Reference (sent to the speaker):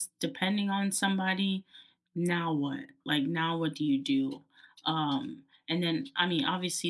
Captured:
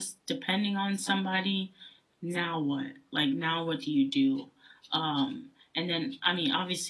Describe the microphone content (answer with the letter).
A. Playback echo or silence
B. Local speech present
A